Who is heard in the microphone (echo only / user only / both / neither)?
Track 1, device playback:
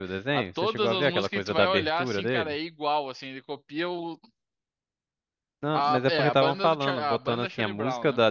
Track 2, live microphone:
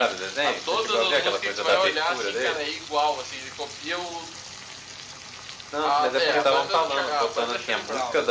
echo only